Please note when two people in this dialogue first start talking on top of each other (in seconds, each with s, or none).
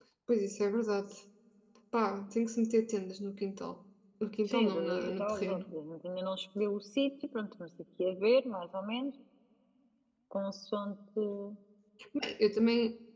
4.5 s